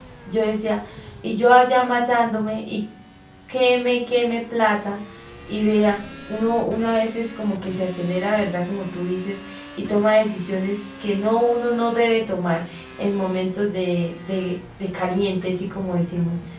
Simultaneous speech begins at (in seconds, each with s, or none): none